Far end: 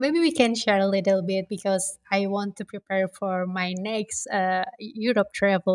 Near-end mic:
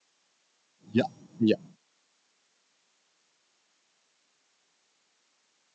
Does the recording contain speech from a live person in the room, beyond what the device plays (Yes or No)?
Yes